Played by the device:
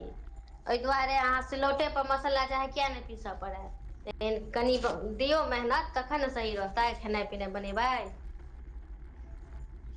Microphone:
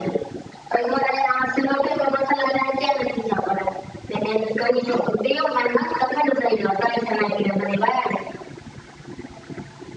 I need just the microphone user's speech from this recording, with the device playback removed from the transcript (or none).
none